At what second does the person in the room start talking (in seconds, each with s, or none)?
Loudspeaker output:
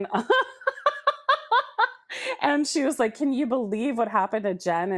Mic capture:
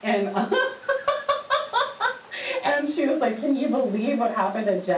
none